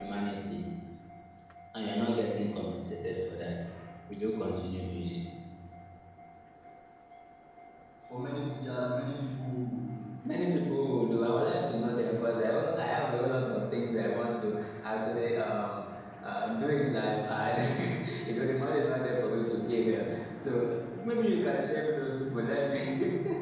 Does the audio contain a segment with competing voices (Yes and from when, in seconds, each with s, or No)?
No